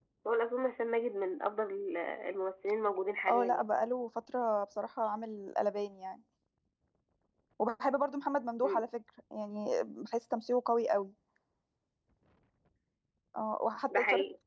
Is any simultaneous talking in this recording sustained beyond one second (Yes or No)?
No